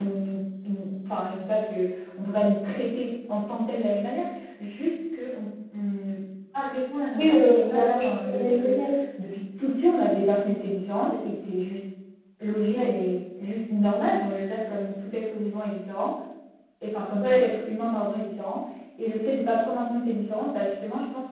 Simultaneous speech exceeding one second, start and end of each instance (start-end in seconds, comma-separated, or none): 7.1-8.8